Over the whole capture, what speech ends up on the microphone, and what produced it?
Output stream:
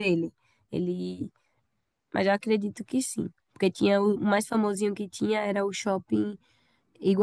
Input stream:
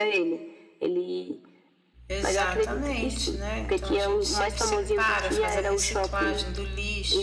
both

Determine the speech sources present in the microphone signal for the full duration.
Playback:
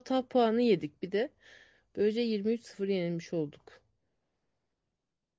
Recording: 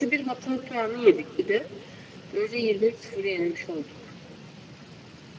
echo only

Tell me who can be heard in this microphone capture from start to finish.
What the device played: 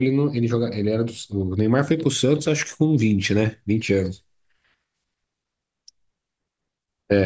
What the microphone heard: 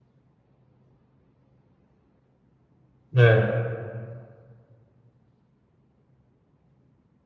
user only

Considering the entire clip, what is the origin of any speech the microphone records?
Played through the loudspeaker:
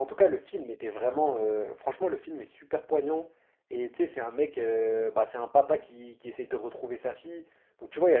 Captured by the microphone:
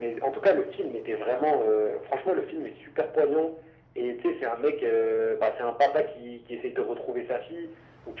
echo only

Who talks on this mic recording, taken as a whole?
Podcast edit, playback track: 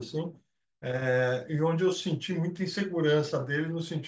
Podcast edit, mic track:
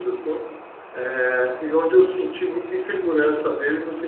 echo only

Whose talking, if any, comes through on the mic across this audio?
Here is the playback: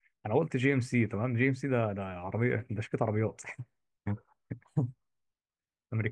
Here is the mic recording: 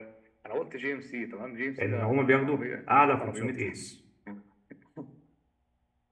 both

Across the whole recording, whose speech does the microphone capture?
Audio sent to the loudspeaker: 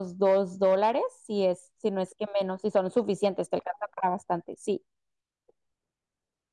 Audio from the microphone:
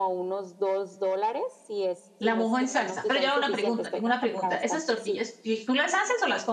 both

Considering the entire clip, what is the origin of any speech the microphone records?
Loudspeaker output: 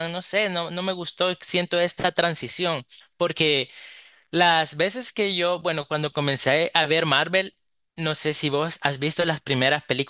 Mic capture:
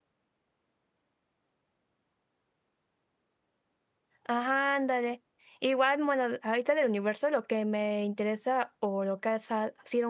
user only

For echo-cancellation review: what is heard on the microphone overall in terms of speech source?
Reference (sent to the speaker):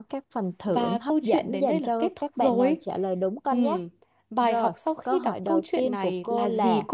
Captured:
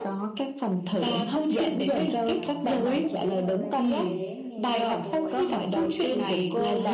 both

